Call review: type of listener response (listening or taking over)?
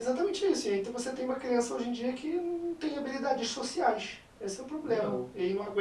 listening